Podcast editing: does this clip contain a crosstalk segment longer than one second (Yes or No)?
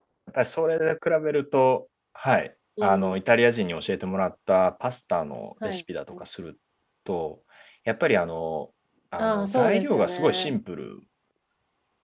Yes